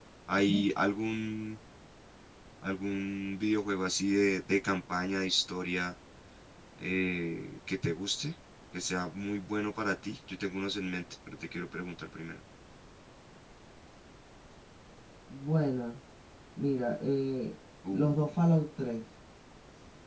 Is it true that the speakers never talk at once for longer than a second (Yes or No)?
Yes